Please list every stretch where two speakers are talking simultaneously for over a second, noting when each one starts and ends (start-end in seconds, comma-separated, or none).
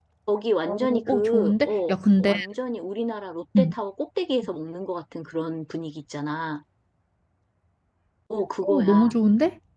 0.7-2.3